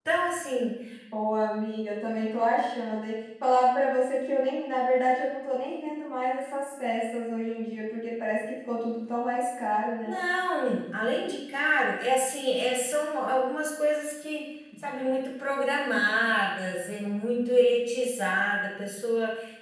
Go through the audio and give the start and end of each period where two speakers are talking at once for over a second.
none

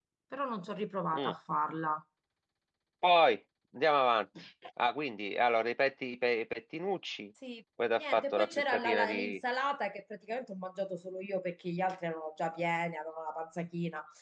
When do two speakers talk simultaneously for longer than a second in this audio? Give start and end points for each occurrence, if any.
8.0-9.4

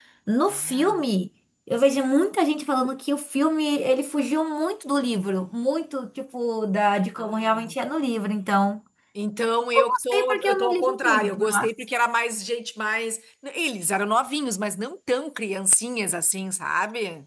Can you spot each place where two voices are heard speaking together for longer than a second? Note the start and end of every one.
9.8-11.7

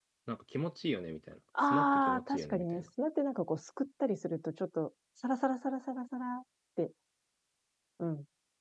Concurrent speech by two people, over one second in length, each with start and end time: 1.6-2.9

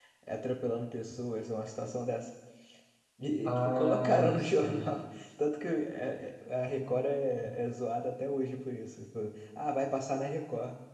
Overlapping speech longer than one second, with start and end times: 3.4-5.0

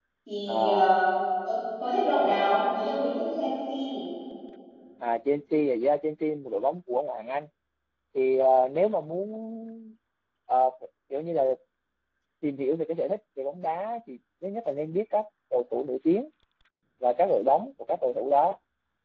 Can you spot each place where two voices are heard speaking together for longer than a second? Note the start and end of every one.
none

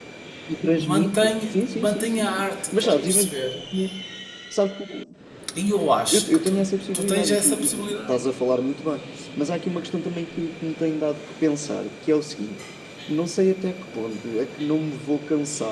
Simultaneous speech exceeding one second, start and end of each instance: 0.8-3.3, 6.1-8.2

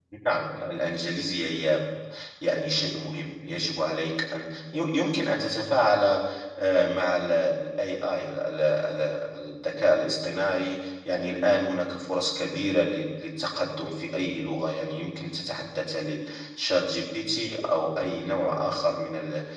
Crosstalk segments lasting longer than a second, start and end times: none

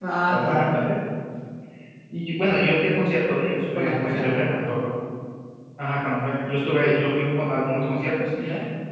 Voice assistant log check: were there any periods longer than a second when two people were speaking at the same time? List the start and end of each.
none

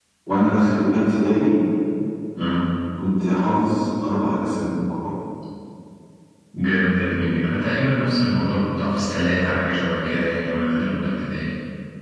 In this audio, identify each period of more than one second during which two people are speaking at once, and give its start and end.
none

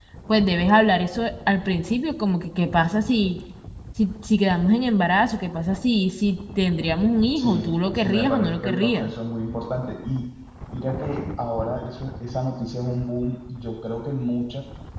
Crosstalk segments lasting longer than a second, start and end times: 7.3-9.1

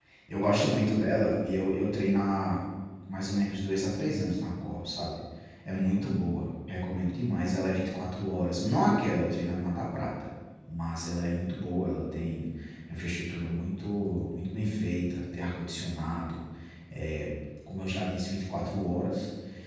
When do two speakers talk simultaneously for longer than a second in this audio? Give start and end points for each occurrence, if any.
none

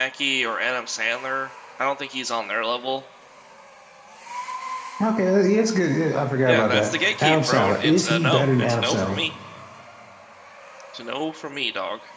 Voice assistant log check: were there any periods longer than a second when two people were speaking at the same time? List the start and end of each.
6.5-9.2

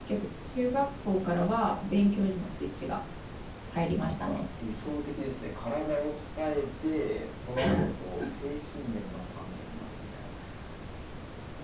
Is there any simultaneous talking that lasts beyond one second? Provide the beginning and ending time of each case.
none

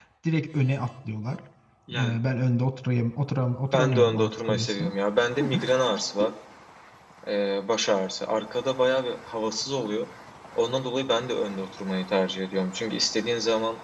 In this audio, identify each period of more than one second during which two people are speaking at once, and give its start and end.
3.7-4.9

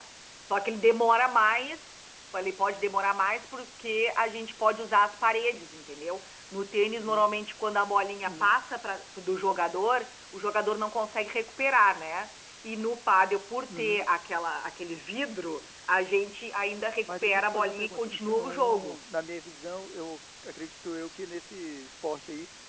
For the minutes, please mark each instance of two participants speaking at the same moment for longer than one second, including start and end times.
17.0-19.0

